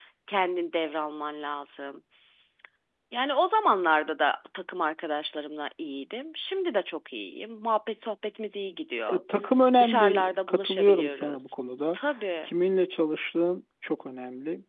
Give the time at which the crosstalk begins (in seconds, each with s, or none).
9.8 s